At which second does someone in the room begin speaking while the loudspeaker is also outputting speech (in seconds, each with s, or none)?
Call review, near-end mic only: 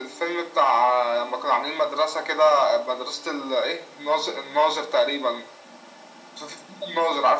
none